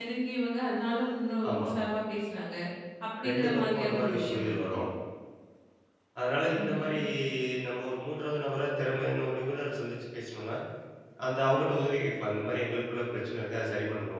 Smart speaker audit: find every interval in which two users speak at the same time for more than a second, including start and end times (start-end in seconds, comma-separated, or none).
3.2-4.8